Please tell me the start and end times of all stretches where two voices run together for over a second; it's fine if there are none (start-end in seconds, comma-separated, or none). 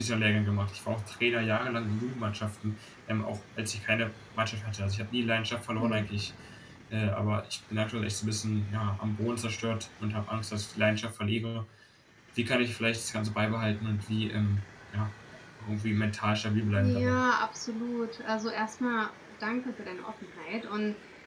none